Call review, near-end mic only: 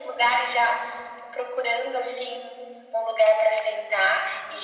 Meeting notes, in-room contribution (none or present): none